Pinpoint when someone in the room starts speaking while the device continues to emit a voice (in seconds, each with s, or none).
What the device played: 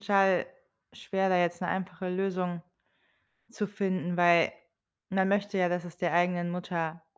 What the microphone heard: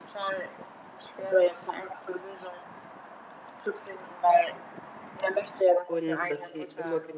5.8 s